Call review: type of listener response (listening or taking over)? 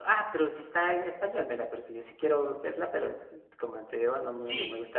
taking over